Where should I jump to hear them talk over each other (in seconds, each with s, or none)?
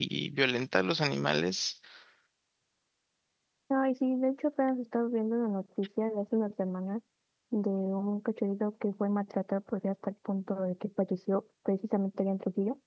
none